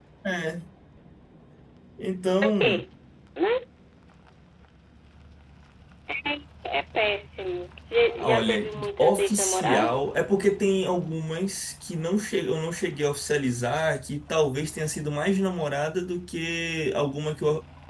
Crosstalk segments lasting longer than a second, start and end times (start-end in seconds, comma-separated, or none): 8.2-10.2